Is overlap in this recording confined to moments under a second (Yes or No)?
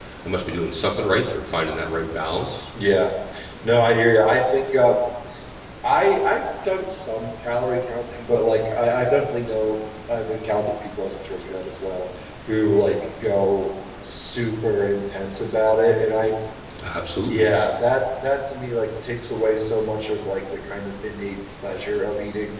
Yes